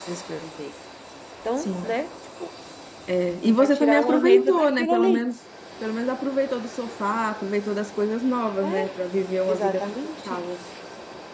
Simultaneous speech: Yes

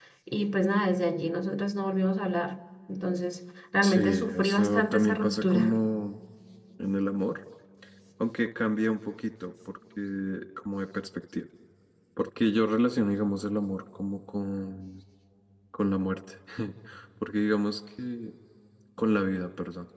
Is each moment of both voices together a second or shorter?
No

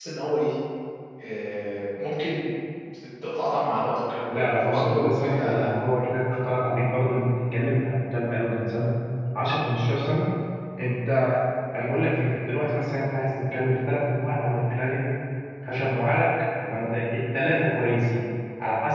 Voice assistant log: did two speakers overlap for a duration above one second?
Yes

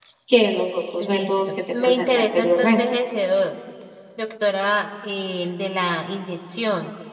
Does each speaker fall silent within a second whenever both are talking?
No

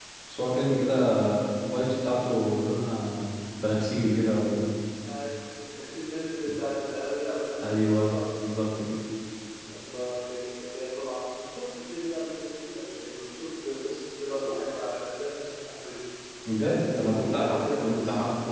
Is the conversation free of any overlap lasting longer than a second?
No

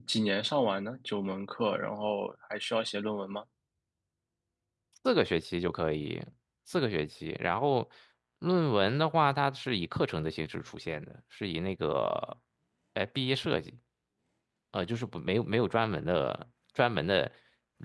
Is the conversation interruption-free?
Yes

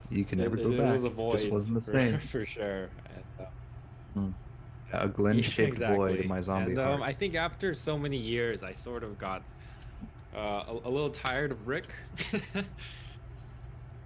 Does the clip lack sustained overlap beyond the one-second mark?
No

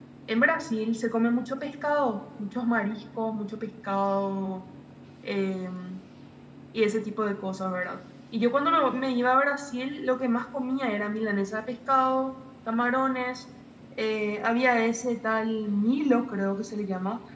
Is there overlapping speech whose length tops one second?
No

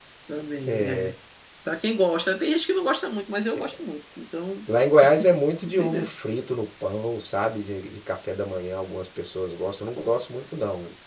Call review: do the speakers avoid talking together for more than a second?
Yes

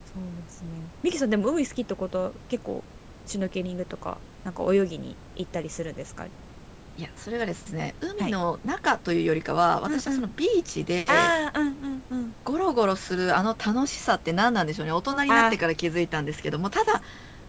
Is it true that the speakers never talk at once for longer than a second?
Yes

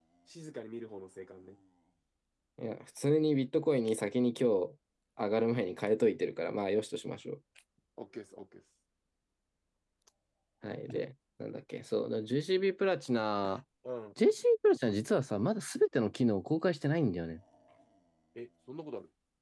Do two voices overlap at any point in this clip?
No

